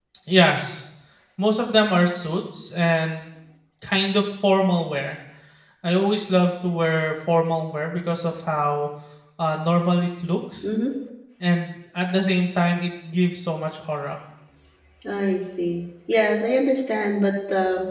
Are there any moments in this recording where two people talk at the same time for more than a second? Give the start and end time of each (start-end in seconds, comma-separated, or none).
none